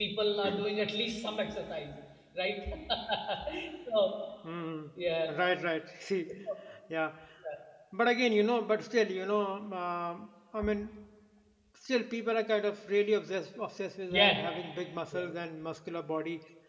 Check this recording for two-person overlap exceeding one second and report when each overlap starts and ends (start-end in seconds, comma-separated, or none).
none